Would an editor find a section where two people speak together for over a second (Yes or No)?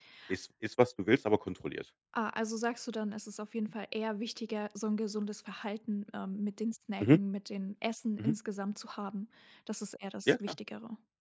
No